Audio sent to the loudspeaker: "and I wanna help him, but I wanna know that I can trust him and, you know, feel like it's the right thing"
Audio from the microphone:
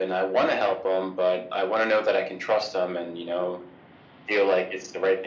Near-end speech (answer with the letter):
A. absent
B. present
A